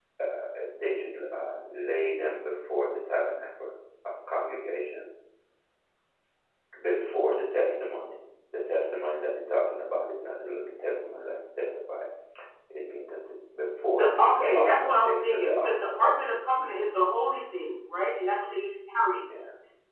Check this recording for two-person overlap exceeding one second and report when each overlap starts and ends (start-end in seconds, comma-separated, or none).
13.9-16.3